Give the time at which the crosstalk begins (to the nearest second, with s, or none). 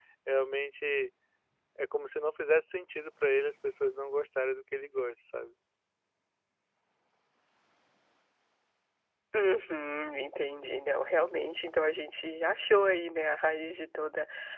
none